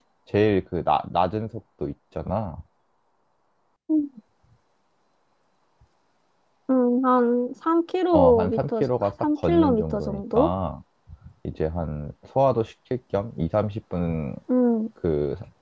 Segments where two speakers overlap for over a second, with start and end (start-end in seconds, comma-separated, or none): 8.1-10.5